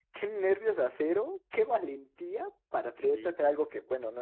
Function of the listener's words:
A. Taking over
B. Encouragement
B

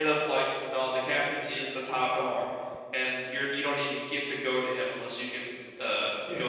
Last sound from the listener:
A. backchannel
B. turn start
B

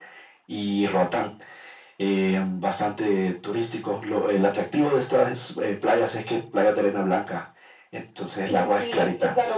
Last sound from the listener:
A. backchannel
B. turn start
B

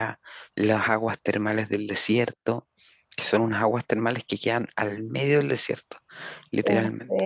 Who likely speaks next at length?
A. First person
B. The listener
B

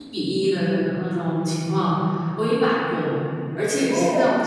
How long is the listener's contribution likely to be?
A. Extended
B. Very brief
B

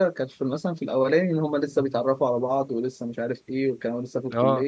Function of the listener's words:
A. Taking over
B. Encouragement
B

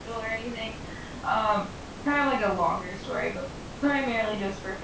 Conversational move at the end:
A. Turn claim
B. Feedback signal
B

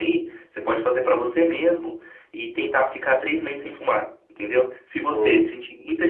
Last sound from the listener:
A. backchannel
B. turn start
A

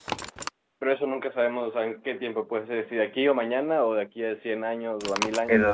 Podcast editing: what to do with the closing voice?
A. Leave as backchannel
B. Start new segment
B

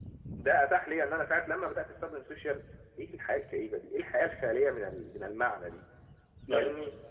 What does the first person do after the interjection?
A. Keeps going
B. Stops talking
A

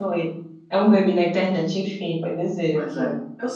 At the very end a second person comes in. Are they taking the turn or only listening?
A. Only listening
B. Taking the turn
B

